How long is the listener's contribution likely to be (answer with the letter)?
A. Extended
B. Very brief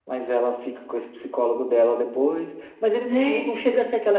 B